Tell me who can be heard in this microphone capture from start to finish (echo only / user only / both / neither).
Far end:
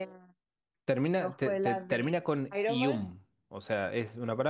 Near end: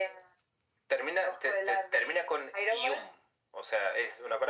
echo only